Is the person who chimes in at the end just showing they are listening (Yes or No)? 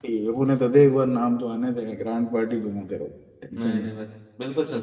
No